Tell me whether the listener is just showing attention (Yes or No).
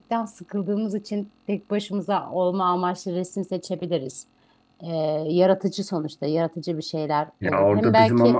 No